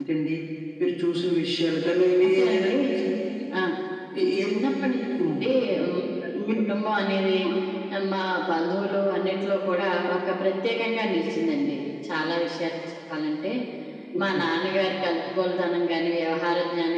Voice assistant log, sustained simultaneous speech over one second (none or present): none